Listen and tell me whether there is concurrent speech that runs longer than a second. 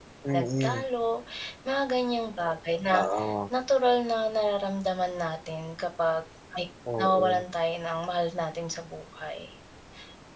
No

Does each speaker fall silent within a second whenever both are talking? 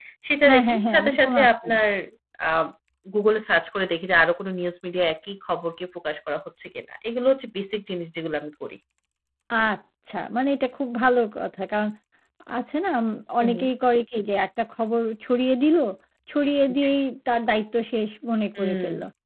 No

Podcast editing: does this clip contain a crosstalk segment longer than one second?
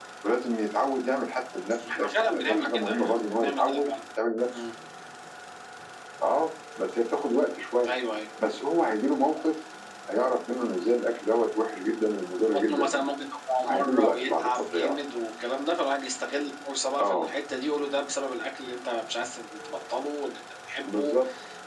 Yes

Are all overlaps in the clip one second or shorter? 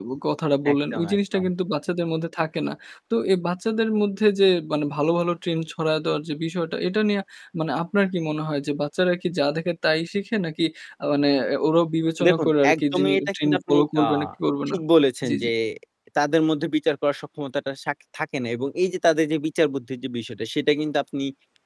No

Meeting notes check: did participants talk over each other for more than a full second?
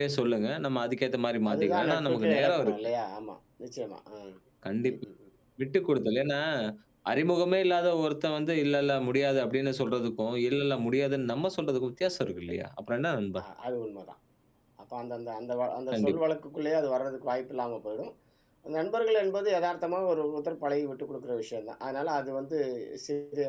Yes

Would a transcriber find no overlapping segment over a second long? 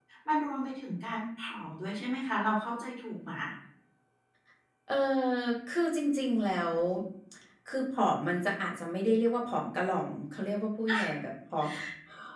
Yes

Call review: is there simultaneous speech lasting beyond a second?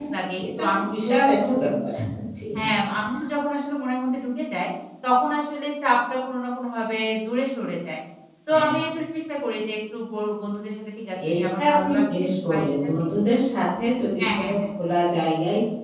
Yes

